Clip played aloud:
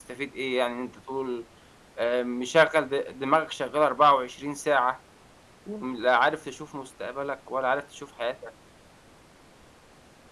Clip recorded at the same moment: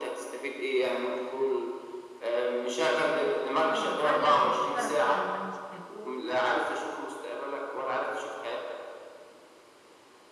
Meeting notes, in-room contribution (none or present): present